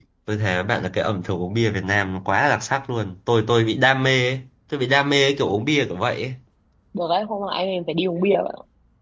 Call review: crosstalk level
none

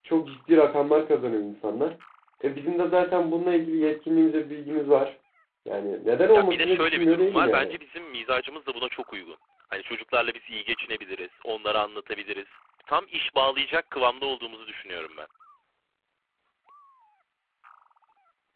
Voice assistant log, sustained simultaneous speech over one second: present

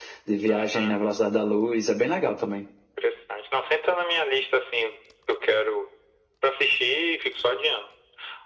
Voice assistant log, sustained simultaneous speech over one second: none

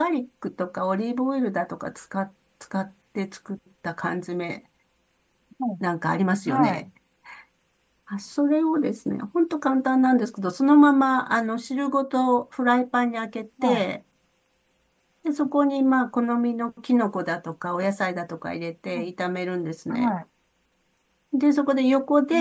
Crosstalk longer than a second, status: none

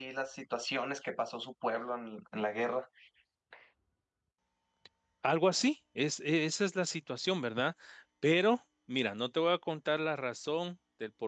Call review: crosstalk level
none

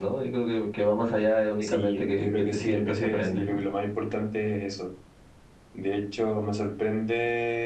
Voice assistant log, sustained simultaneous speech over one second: present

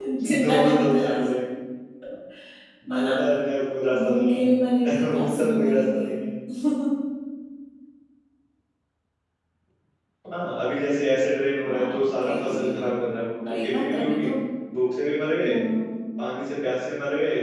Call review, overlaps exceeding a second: present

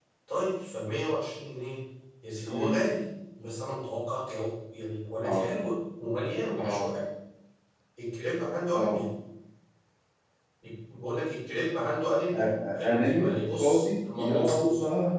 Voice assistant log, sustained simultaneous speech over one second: present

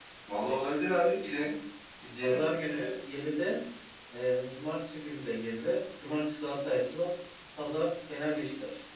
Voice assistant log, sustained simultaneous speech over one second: none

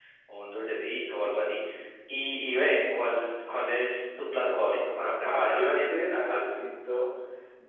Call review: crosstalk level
present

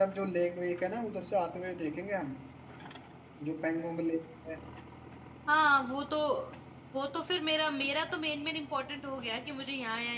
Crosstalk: none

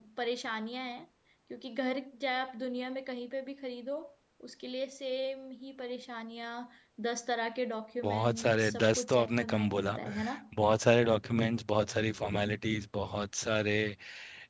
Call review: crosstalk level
present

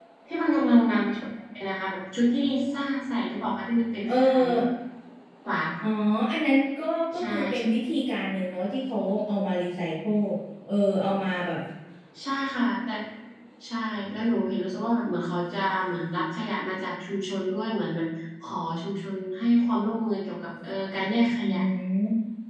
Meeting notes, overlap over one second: none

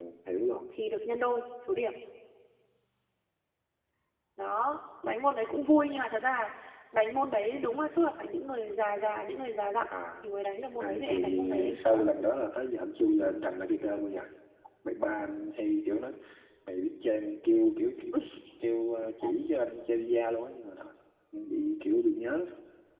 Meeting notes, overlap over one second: present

